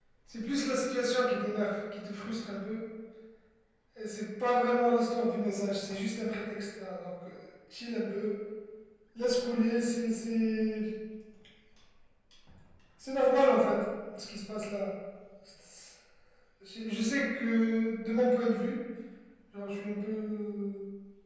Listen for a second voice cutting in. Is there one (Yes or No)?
No